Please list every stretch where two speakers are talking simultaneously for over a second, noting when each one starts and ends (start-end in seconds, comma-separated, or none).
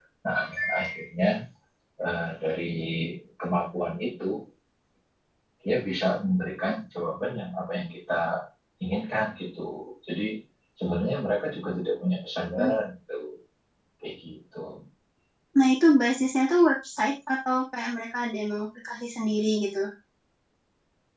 none